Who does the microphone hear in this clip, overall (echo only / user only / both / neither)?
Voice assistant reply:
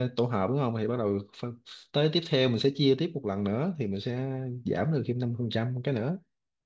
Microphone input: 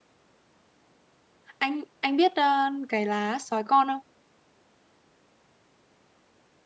user only